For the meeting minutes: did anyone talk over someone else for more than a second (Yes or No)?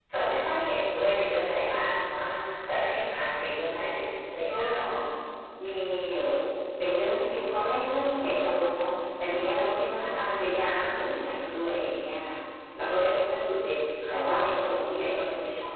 No